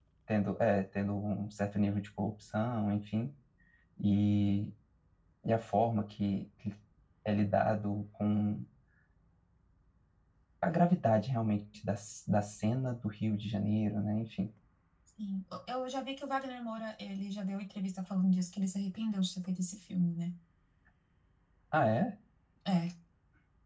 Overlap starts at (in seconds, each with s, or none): none